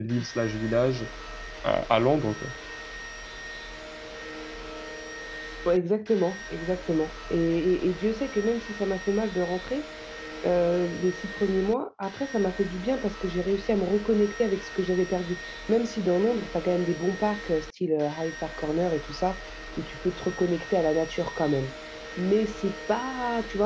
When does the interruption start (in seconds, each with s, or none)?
none